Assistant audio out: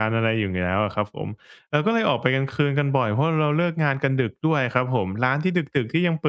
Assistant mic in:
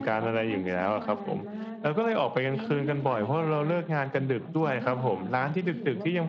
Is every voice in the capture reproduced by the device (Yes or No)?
No